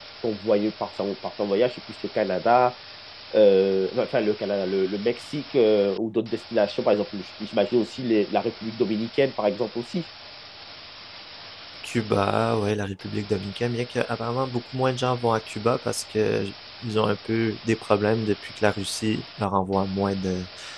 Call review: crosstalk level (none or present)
none